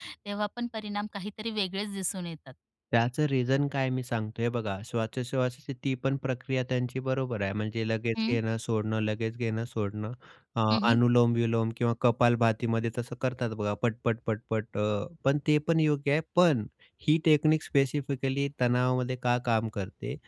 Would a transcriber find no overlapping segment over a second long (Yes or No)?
Yes